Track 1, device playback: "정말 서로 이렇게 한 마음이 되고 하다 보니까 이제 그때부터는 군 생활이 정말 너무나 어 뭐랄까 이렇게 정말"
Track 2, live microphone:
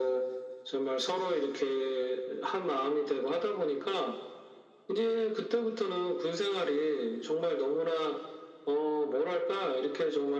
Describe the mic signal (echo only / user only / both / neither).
echo only